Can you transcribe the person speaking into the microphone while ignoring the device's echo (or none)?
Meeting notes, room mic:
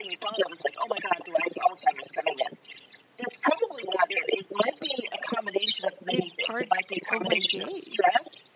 big parts of my day.